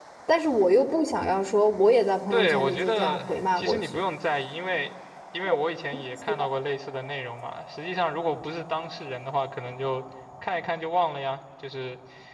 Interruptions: present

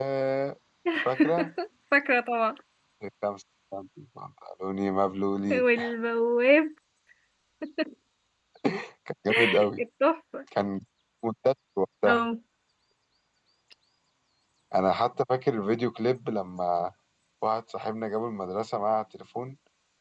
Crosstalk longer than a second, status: none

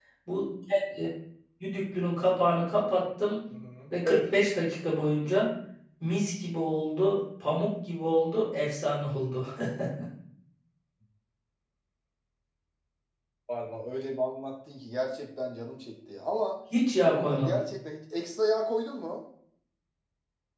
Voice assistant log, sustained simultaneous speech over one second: none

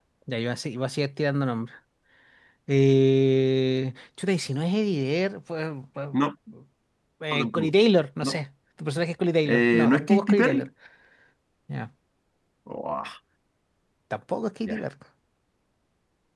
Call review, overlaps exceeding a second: present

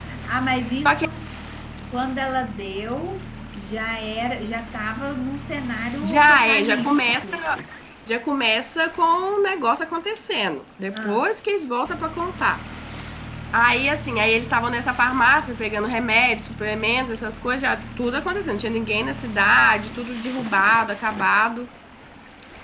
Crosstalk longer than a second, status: present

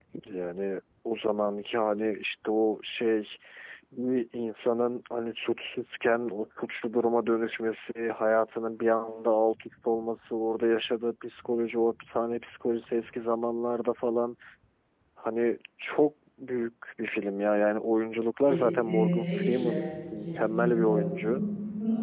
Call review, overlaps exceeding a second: present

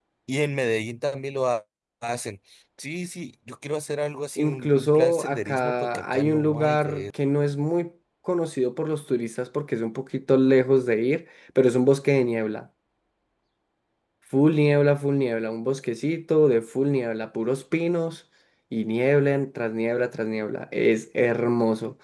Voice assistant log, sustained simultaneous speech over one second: present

